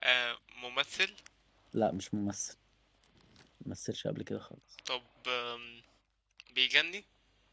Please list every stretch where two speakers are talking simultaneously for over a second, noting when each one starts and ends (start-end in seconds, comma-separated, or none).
none